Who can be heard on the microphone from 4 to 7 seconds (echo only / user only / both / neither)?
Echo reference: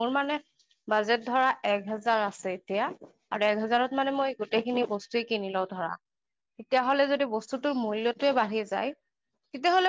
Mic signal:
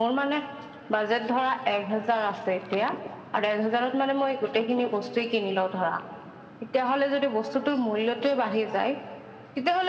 echo only